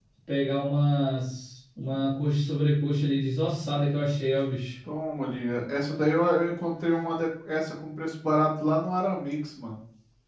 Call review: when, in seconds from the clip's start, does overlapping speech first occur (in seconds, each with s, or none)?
none